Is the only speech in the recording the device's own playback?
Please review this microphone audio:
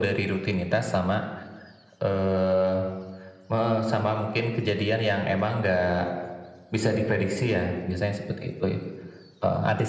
Yes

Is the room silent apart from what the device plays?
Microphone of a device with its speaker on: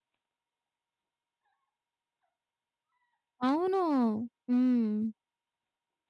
No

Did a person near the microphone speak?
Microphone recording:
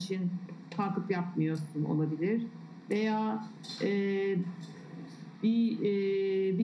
No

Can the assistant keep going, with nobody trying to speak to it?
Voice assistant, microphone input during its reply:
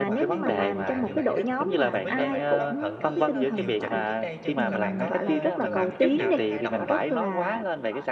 No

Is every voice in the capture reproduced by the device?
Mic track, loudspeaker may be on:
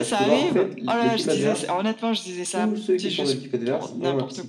No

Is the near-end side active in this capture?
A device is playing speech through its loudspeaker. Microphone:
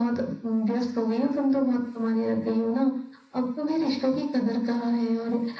No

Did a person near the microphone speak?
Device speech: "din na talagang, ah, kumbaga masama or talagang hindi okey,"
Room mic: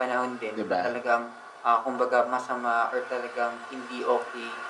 Yes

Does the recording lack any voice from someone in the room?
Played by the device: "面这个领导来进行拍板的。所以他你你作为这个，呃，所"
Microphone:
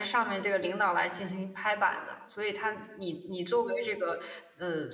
Yes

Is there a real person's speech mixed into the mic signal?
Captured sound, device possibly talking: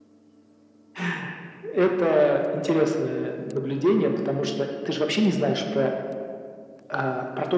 No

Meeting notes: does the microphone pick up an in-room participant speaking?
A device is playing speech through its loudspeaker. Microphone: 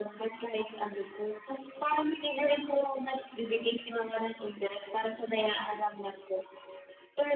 No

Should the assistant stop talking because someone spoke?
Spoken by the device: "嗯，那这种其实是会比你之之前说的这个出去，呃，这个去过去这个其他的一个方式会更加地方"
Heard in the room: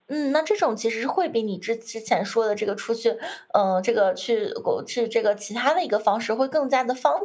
No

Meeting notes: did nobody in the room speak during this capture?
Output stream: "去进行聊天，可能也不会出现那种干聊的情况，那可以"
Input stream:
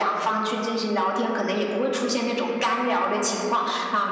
Yes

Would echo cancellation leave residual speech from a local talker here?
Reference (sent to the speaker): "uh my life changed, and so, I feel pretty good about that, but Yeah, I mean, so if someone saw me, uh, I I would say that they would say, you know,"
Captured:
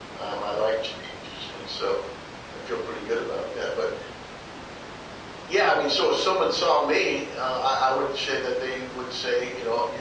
No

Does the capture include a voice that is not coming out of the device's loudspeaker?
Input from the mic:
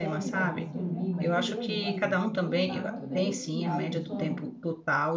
Yes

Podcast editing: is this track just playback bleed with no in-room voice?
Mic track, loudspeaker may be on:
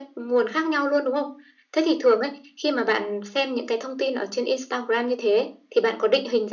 Yes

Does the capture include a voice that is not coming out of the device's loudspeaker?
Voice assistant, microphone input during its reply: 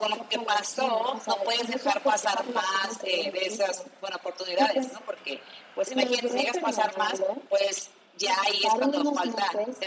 No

